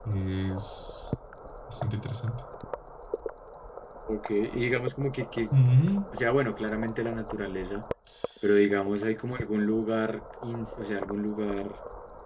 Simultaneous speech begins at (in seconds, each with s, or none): none